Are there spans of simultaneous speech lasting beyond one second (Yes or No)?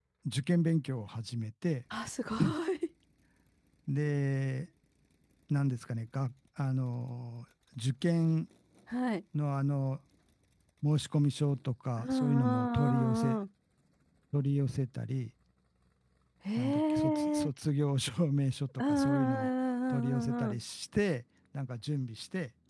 Yes